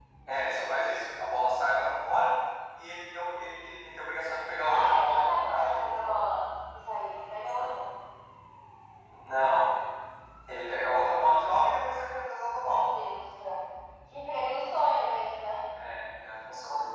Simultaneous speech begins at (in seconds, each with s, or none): 4.7 s